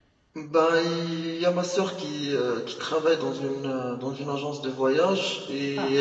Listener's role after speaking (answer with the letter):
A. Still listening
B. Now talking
A